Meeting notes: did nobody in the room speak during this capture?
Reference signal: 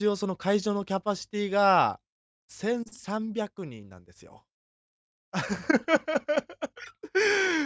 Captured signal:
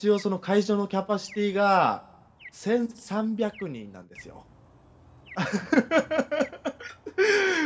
Yes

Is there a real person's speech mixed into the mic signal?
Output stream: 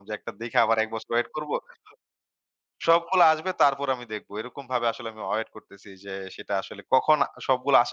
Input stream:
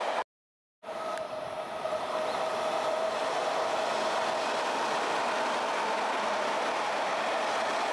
No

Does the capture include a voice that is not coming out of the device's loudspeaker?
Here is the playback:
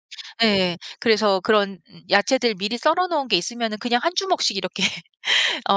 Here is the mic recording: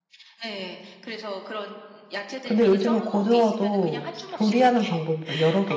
Yes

